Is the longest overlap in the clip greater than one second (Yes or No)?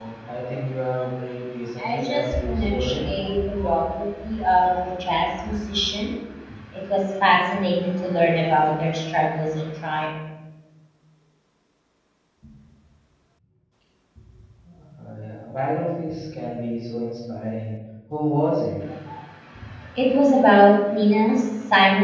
Yes